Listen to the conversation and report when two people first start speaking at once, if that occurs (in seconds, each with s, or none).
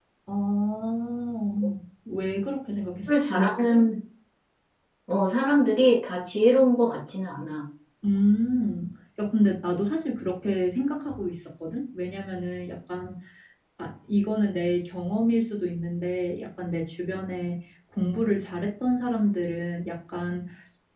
none